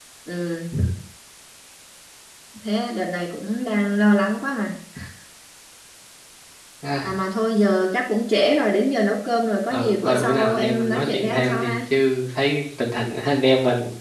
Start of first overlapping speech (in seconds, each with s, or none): 9.7 s